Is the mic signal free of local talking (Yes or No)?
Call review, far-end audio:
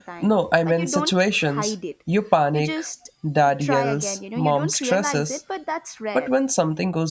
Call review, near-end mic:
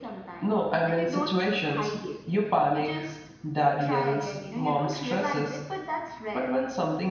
Yes